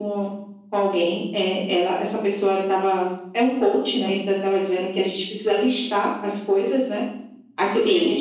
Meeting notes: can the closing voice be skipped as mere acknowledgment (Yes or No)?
Yes